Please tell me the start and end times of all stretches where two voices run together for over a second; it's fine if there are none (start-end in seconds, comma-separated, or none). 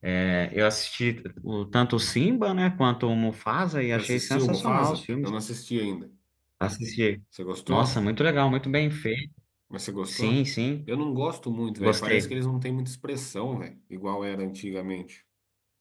4.0-5.3